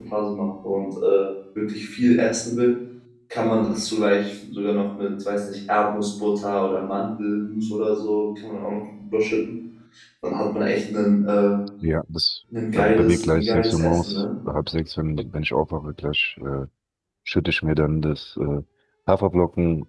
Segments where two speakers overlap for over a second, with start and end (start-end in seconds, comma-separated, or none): 12.7-14.2